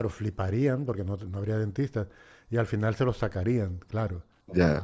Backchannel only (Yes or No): No